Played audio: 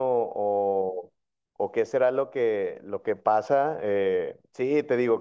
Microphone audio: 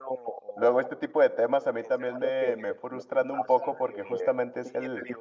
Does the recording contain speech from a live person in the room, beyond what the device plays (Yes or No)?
Yes